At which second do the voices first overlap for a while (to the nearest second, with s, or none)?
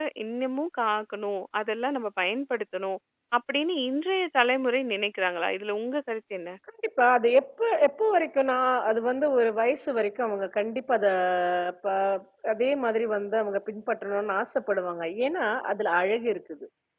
none